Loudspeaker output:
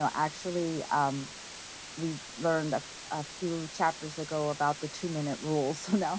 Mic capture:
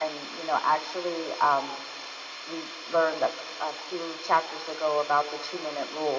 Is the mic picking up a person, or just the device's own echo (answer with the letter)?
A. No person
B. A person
A